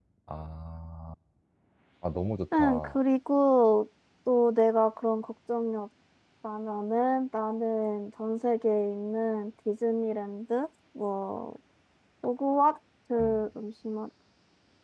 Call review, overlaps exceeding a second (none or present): none